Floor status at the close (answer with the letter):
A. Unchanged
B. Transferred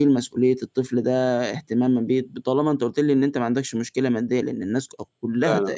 A